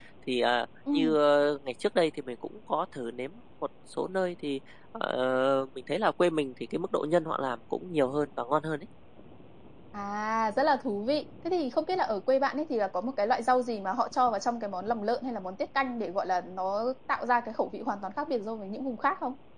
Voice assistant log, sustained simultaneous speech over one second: none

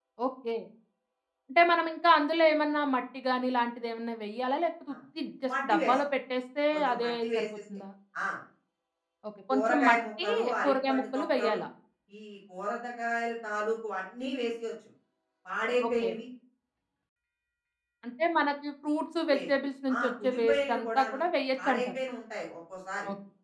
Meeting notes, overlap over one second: present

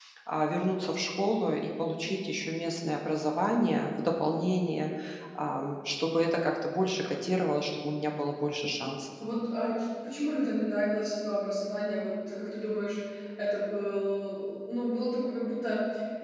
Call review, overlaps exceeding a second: none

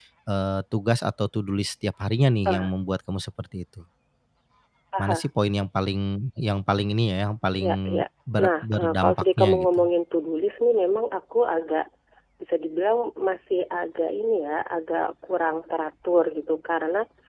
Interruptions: present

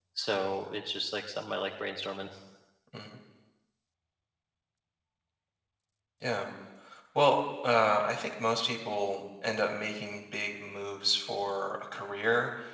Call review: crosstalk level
none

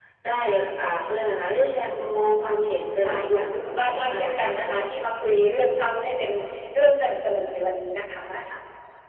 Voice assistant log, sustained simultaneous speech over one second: present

